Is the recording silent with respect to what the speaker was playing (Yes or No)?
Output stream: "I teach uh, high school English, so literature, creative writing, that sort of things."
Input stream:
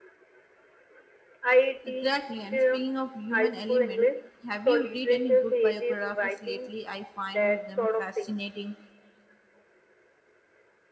No